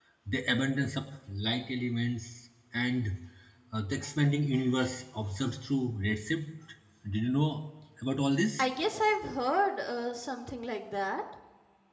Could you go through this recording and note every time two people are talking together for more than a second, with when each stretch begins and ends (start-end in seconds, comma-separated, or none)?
none